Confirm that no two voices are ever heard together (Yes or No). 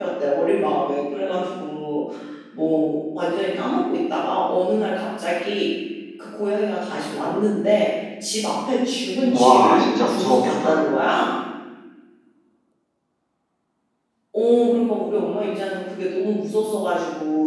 No